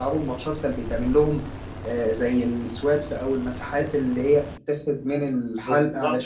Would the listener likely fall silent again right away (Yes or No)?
No